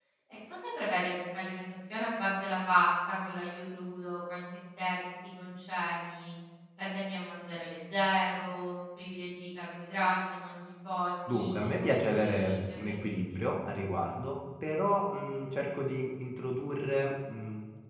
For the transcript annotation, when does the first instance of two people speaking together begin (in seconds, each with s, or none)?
11.3 s